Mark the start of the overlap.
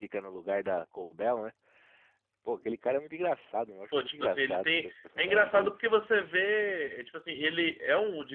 3.9 s

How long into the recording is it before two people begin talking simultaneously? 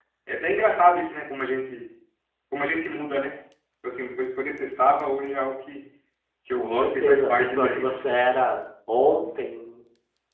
6.6 s

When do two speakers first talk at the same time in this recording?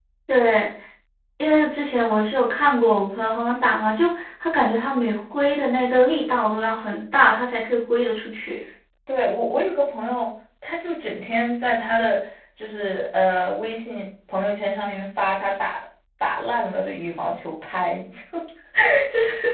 none

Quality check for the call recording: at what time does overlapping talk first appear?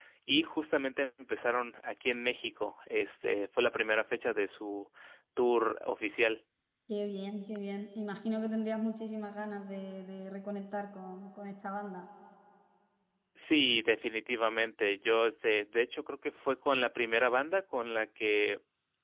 none

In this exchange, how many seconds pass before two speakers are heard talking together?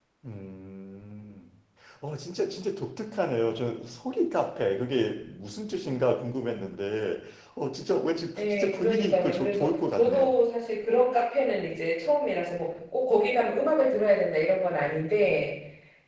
8.4 s

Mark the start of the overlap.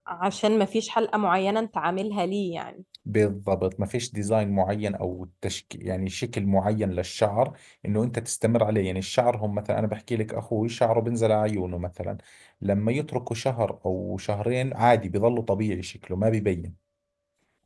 none

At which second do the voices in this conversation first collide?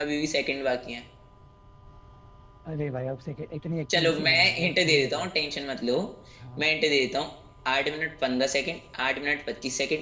3.9 s

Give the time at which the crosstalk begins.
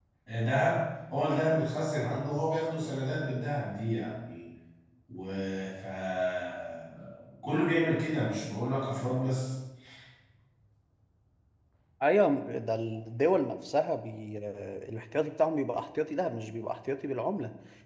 none

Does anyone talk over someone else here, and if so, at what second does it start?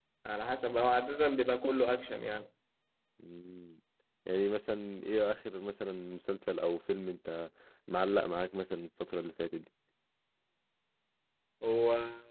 none

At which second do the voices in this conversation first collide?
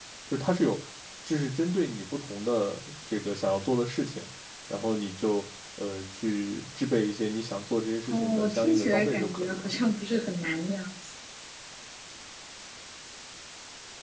8.1 s

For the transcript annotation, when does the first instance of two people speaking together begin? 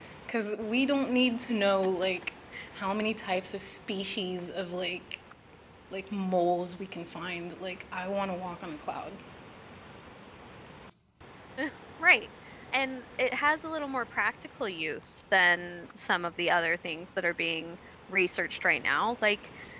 none

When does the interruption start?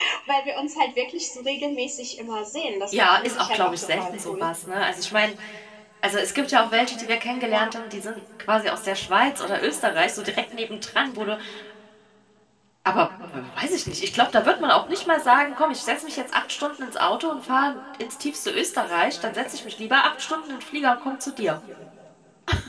2.9 s

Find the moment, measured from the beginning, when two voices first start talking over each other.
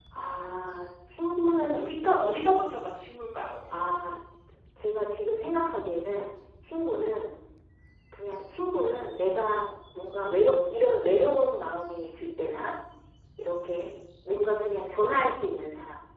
none

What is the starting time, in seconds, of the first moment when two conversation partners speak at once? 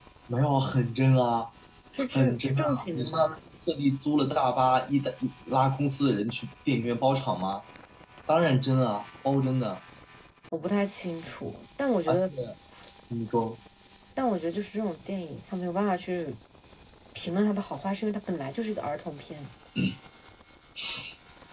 2.1 s

